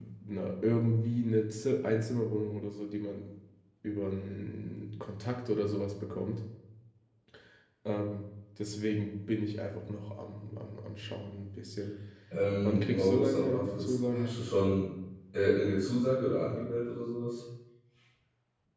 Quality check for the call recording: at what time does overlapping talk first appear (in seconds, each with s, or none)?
12.6 s